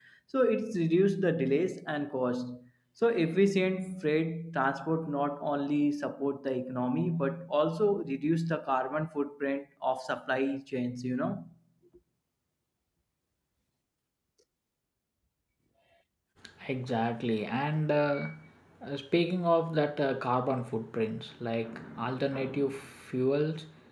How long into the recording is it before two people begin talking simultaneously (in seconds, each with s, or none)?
none